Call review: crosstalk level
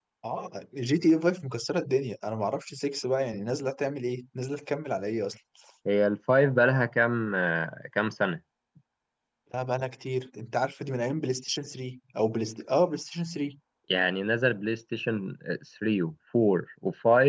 none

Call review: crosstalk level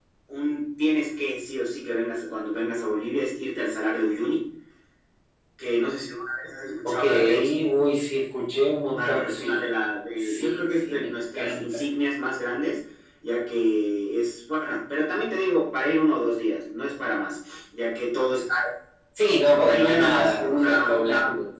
present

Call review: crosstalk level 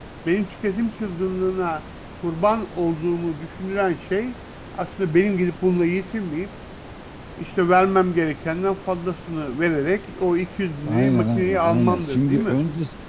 present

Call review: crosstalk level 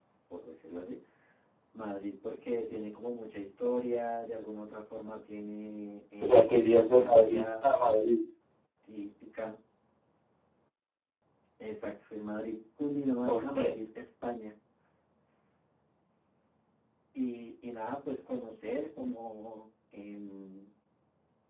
present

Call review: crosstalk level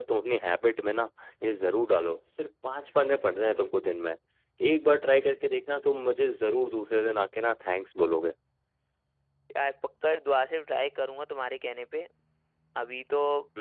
none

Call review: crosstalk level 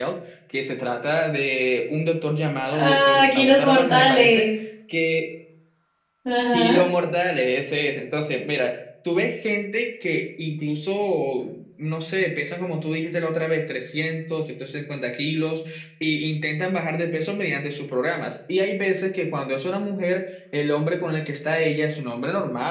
present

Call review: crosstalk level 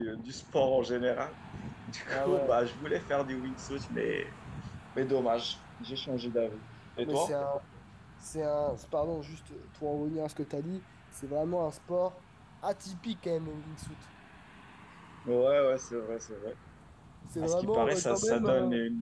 present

